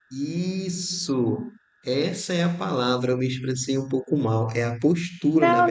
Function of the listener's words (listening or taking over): taking over